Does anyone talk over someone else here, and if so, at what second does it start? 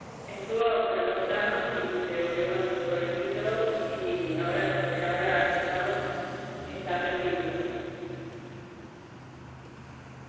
none

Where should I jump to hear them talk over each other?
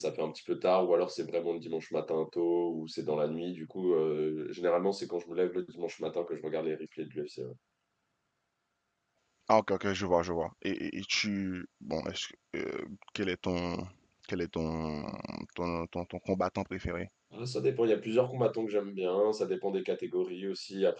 none

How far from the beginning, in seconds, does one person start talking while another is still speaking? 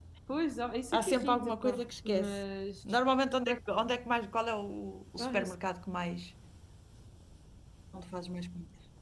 1 s

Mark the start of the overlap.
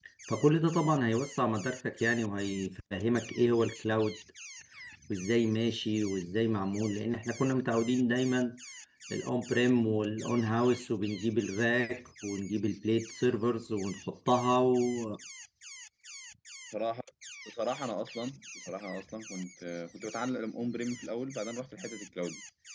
none

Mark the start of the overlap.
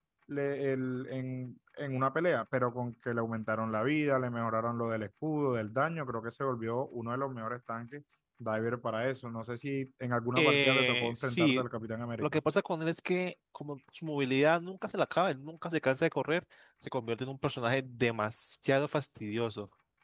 10 s

